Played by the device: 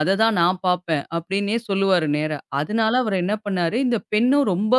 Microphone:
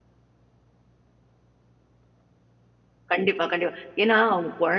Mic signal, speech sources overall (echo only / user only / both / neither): user only